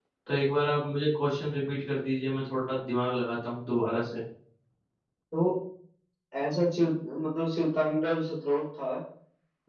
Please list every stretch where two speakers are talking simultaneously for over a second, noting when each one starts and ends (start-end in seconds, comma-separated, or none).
none